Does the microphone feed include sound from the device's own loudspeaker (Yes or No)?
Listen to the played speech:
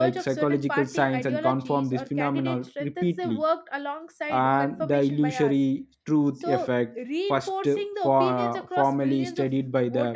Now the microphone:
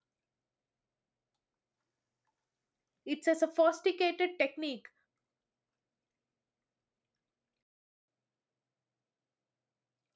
No